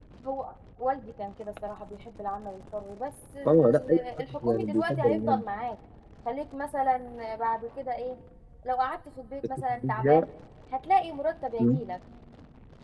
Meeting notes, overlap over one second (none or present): present